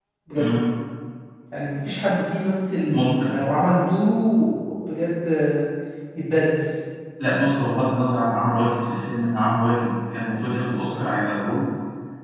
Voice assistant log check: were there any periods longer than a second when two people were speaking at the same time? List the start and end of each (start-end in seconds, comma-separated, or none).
none